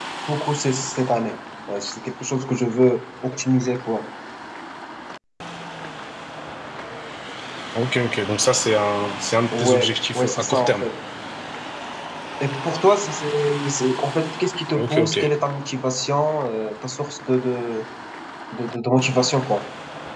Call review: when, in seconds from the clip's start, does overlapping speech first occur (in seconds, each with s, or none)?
9.6 s